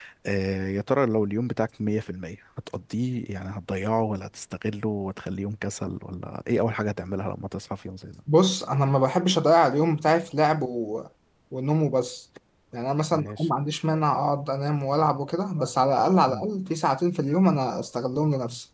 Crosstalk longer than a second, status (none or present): none